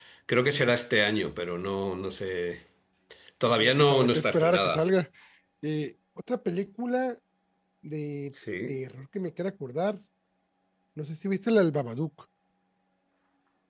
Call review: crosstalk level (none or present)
present